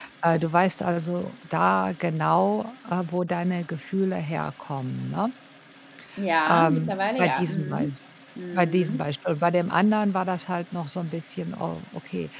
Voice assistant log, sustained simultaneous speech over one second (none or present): present